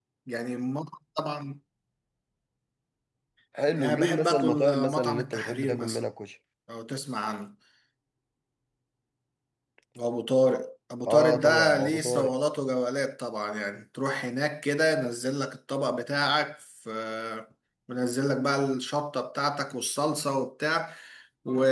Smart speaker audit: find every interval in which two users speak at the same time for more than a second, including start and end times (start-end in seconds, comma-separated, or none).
3.8-6.0, 11.1-12.3